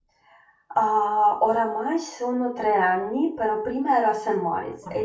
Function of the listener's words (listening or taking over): listening